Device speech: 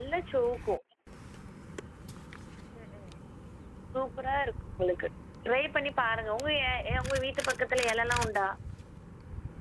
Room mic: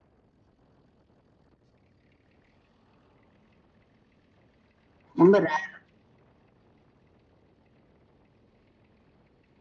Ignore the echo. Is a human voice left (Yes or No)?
Yes